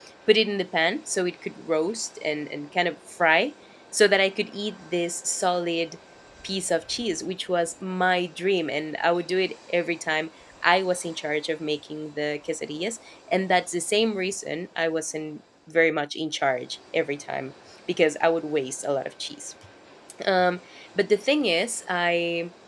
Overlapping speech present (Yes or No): No